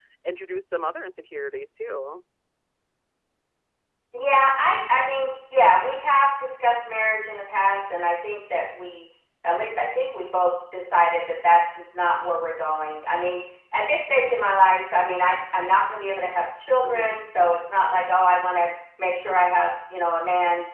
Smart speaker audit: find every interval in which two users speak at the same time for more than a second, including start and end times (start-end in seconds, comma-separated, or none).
none